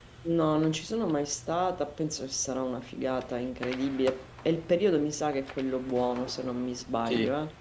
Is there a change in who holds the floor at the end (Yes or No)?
Yes